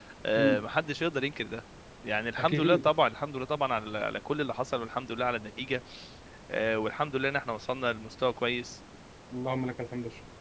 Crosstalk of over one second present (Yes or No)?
No